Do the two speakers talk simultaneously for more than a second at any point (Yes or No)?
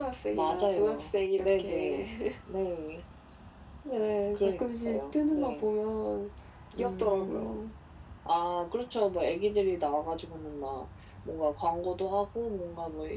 Yes